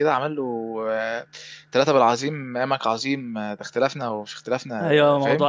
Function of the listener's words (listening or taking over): taking over